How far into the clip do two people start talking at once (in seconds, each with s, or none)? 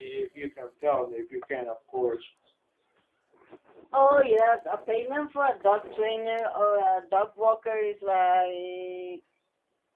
none